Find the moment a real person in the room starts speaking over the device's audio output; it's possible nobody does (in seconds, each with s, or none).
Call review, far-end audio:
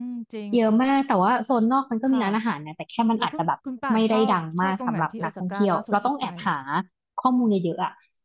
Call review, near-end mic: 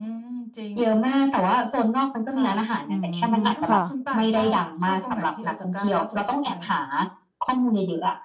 2.9 s